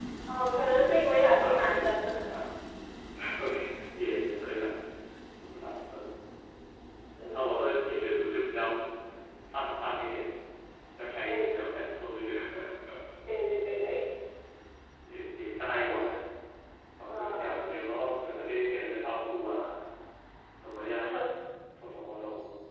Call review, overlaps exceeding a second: present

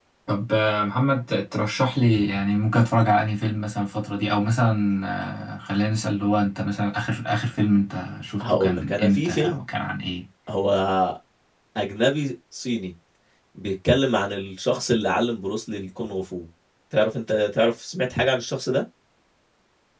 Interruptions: present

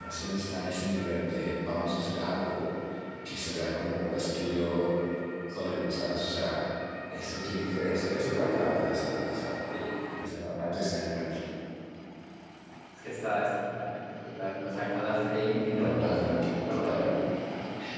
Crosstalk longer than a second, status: present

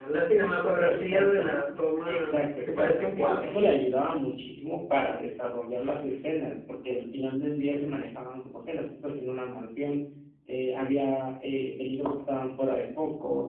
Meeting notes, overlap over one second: present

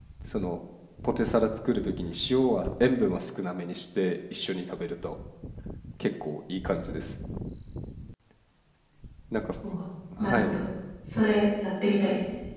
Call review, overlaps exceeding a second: none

